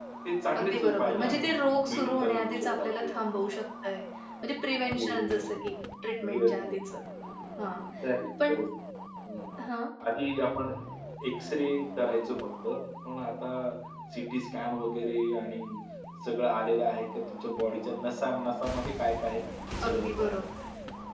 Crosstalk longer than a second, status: present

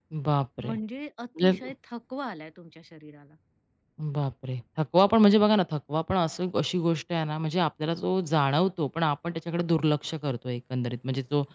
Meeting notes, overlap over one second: none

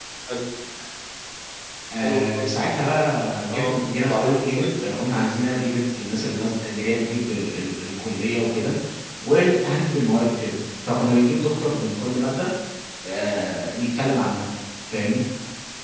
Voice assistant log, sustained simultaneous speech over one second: present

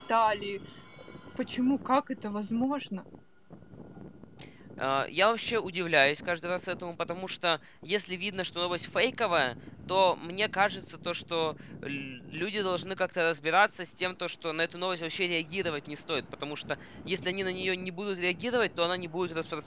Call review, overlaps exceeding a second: none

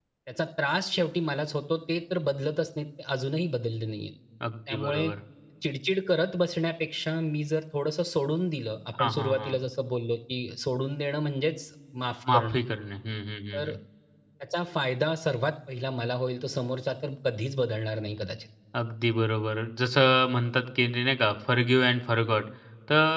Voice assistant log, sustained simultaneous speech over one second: none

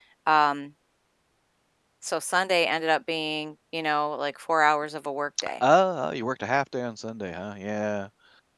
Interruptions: none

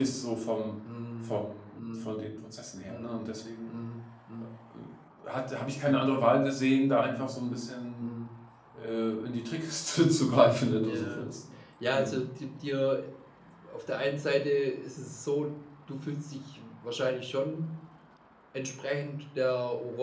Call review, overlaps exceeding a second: none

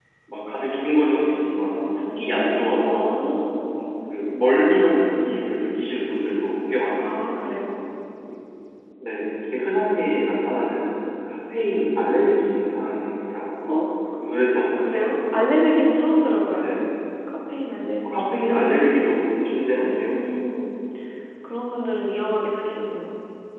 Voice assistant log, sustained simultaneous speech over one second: none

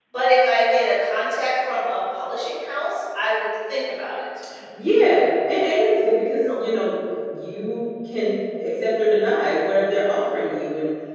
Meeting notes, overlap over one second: none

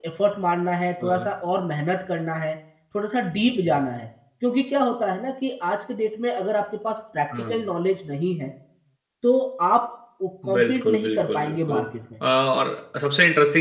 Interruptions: present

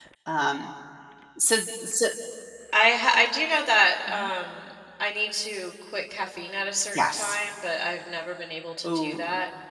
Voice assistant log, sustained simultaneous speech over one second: none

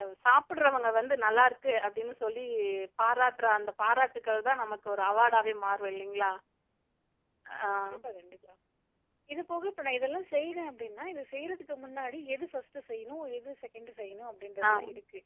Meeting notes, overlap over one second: none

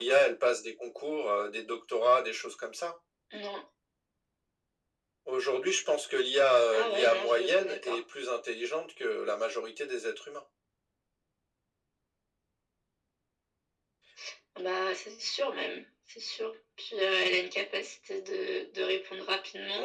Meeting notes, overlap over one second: present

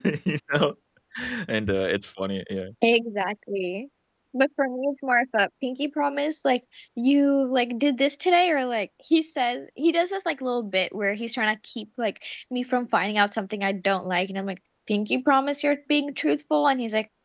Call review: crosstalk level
none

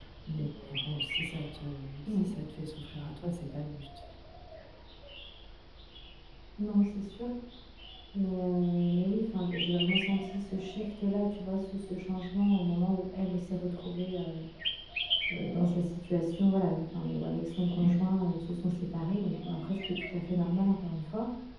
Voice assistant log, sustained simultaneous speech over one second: none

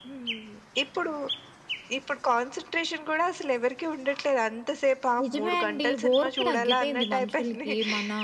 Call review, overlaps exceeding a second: present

